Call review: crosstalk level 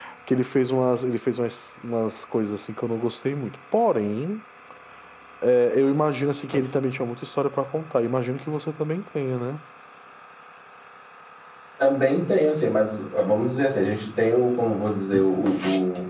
none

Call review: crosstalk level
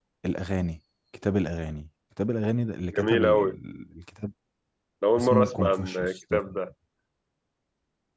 present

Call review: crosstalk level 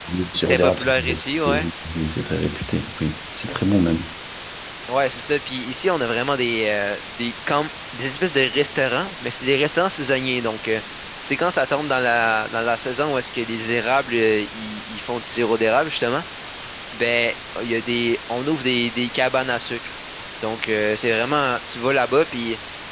present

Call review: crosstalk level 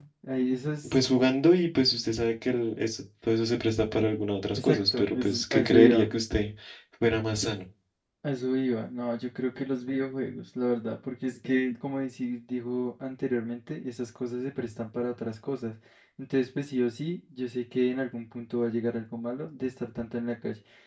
present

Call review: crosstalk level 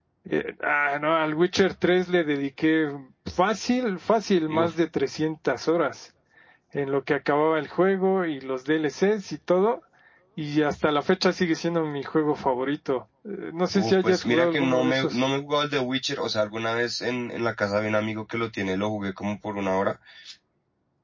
present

